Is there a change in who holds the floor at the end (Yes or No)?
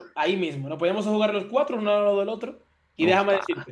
No